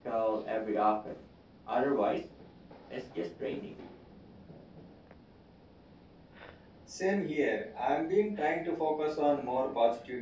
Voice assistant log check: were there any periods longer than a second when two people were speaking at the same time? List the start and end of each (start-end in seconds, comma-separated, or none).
none